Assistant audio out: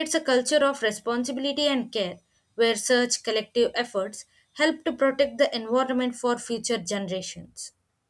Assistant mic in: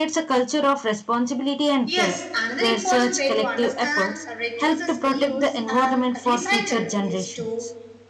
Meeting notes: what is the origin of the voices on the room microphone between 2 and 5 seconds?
both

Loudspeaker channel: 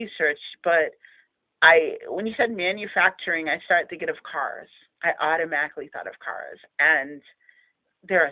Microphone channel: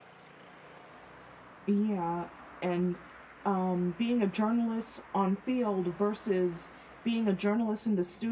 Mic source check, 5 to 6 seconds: user only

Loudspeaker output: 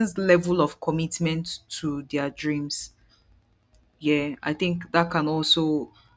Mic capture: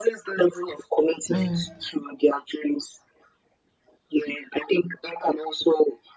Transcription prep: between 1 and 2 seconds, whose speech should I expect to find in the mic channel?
both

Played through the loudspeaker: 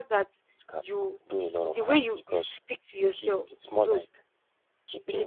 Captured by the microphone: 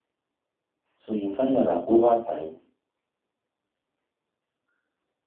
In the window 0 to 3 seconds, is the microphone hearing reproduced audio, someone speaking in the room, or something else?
user only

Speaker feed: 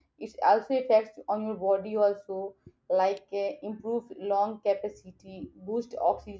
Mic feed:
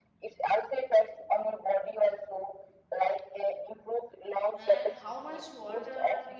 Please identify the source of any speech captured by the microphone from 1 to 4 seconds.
echo only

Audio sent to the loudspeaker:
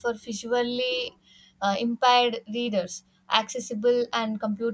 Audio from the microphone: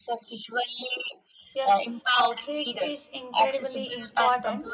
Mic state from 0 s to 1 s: echo only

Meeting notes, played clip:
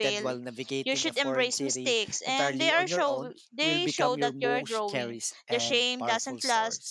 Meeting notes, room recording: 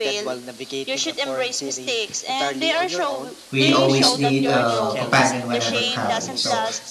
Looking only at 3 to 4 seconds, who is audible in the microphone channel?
both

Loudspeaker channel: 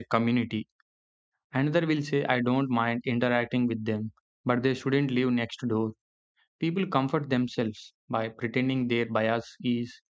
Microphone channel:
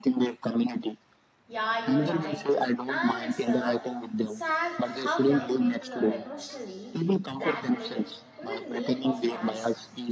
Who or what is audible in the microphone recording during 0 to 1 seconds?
echo only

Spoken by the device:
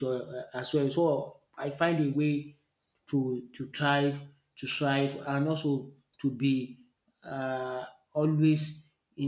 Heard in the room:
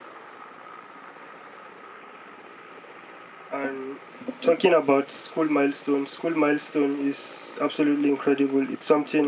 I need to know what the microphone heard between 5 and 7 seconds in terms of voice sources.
user only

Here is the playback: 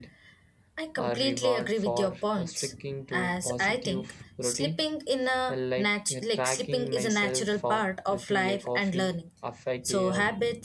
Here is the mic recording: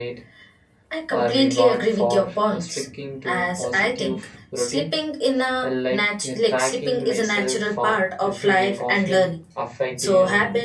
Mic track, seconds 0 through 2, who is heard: echo only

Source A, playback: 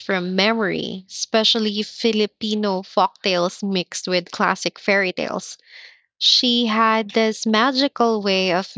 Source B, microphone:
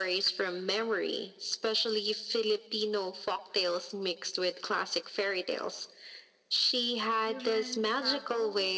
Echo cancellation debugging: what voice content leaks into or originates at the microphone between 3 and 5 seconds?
echo only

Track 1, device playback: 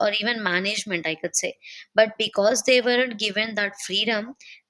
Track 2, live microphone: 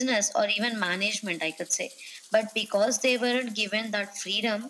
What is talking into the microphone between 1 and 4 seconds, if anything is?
echo only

